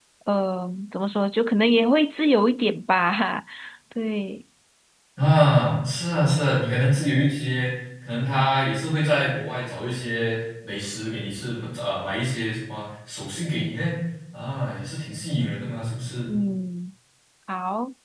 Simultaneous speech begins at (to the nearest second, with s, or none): none